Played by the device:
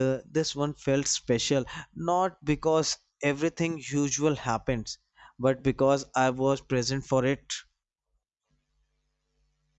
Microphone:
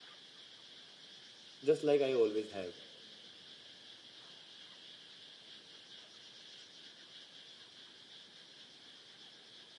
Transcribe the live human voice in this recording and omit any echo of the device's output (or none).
just like i always have